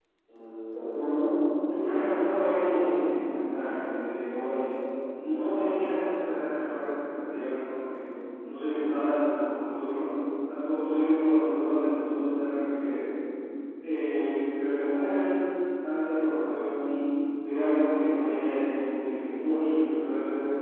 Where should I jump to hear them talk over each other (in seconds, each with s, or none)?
1.7 s